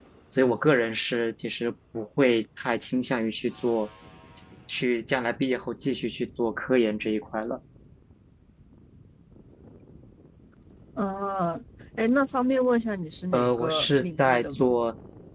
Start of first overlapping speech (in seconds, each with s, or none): 13.3 s